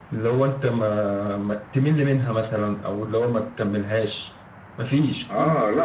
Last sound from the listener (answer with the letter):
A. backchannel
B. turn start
B